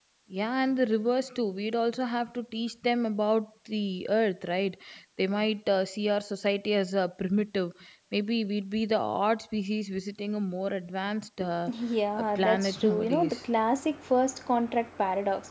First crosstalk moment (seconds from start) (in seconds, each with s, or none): 12.2 s